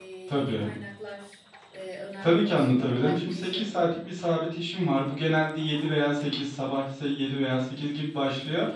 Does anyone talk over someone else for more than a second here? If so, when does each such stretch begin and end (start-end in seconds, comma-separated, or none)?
2.2-3.9